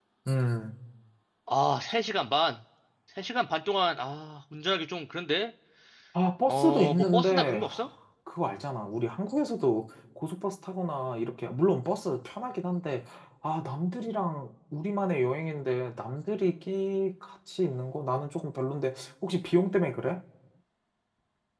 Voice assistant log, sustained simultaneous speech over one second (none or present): present